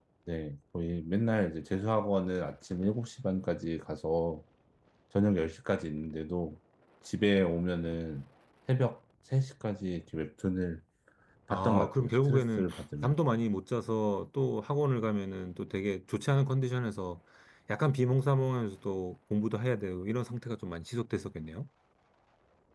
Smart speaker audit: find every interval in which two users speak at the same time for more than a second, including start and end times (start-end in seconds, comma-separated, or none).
11.5-13.1